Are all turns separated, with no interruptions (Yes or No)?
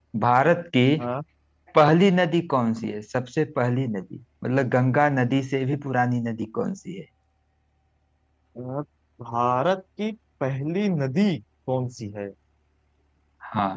Yes